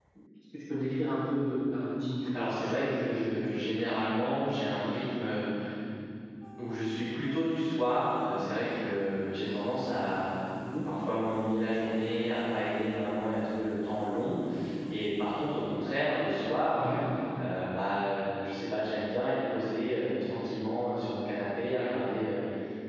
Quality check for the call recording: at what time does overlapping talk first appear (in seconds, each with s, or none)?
2.2 s